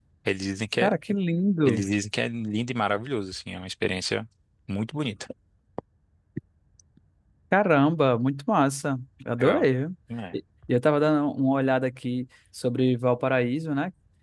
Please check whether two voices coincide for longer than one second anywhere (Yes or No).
No